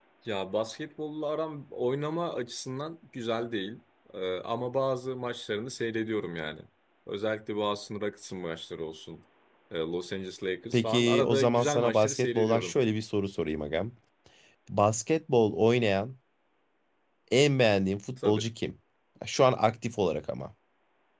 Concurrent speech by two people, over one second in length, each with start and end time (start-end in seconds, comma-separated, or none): 10.7-12.7